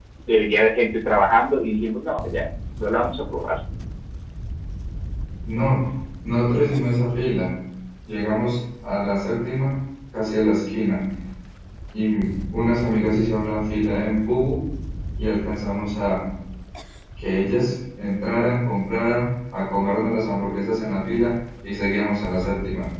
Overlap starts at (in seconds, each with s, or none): none